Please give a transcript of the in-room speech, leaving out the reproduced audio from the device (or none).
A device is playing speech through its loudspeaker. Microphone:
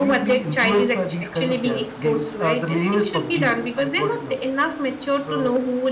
none